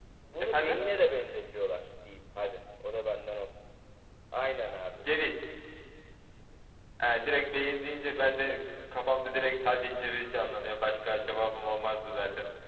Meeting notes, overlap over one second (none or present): none